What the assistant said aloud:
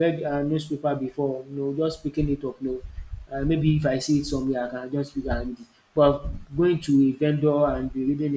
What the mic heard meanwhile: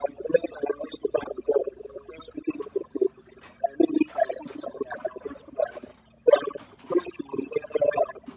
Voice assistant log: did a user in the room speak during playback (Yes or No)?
No